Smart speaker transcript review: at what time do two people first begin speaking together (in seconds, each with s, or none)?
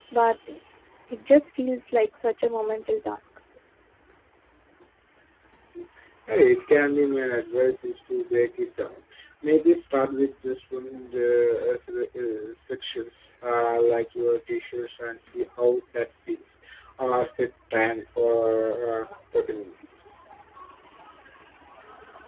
none